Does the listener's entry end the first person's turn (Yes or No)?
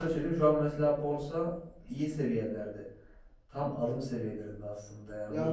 Yes